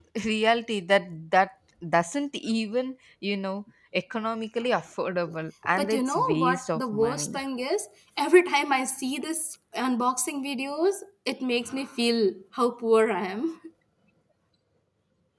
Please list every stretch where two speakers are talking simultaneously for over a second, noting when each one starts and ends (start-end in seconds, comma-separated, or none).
5.8-7.4